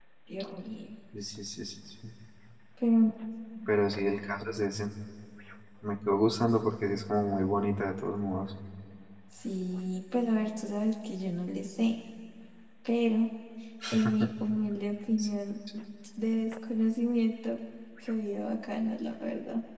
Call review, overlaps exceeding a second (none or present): none